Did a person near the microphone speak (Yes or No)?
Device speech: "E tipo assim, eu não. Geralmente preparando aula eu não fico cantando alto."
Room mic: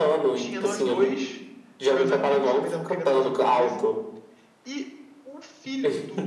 Yes